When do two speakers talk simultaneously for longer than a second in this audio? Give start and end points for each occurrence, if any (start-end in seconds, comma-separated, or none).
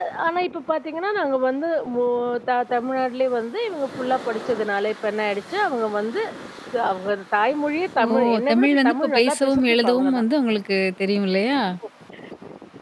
8.2-10.2